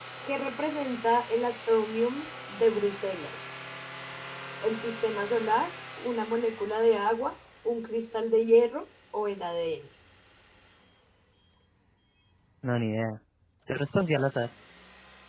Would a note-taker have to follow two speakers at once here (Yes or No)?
No